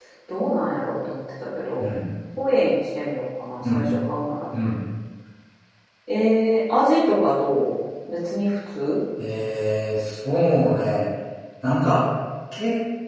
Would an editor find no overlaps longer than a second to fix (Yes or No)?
Yes